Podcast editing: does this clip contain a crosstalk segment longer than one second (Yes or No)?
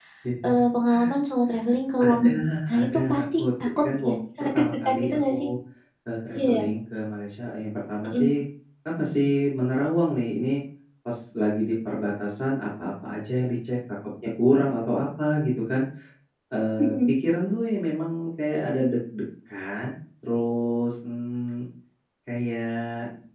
Yes